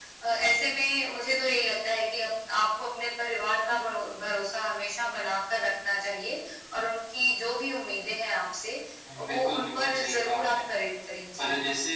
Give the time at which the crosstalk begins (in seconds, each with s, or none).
9.2 s